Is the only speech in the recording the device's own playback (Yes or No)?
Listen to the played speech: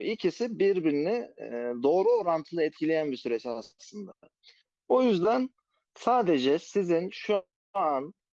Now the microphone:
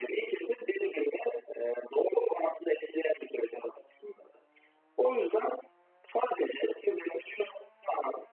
Yes